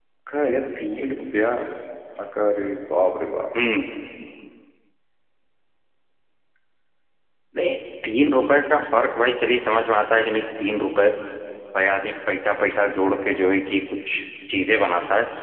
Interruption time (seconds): none

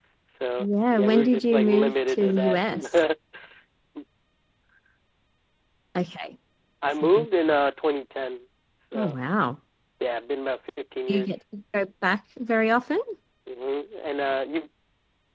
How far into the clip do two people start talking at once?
0.6 s

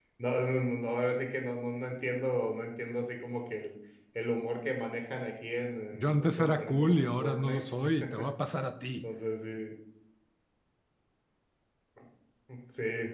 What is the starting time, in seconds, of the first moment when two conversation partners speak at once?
5.9 s

